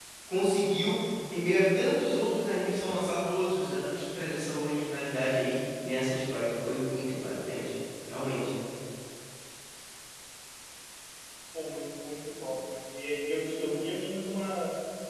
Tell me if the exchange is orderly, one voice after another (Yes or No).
Yes